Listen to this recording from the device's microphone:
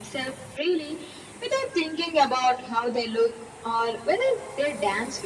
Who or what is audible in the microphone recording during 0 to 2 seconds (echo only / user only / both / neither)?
echo only